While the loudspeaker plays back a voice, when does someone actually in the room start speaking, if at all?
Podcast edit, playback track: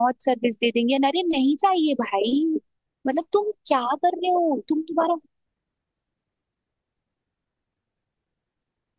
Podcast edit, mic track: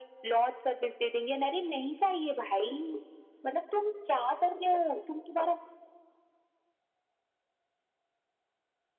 none

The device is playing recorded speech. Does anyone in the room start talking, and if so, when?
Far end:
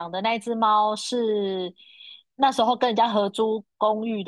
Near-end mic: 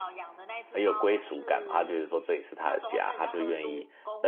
0.7 s

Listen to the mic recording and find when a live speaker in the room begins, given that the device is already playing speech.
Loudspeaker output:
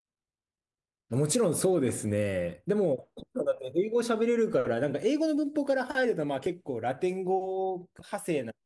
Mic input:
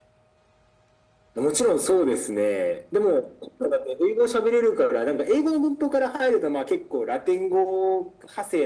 none

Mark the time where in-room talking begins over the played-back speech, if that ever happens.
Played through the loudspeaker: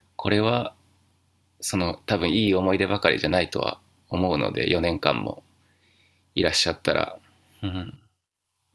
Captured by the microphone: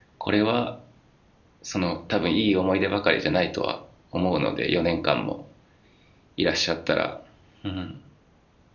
none

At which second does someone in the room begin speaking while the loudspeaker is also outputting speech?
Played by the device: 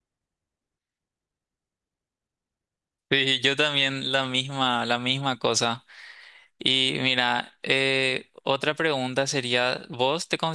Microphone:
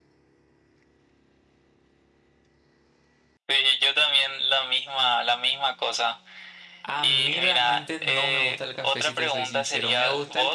6.8 s

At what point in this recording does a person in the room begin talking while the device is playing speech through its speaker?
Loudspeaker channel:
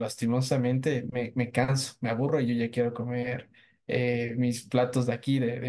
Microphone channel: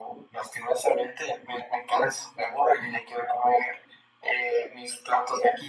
none

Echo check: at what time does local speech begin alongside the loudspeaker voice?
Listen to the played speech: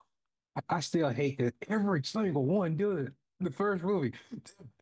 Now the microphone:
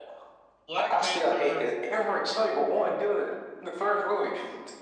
0.6 s

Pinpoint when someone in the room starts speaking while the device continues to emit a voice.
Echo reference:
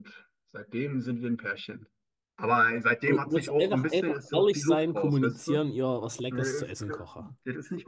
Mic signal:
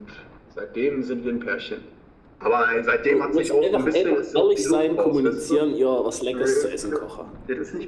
none

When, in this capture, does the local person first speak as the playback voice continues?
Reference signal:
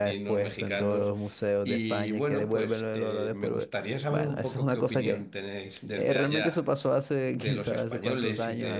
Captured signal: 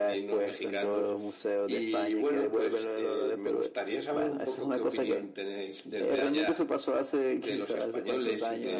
none

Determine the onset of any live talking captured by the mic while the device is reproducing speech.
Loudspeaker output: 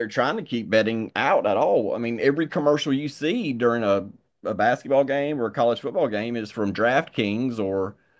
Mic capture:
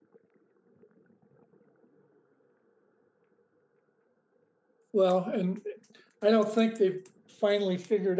4.9 s

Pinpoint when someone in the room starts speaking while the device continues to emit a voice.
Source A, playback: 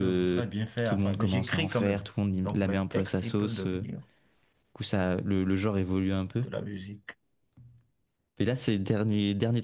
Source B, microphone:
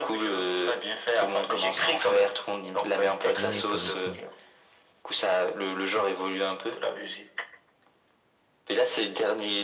3.4 s

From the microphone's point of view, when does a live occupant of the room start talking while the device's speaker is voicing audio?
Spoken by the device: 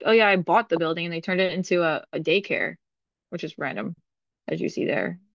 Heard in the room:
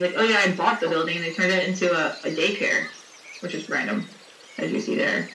none

